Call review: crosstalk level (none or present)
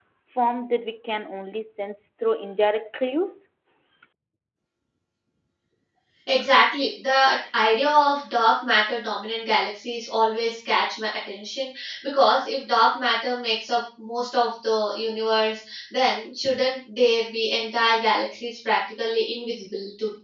none